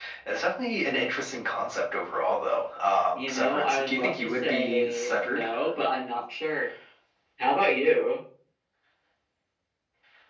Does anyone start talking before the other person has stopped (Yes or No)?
Yes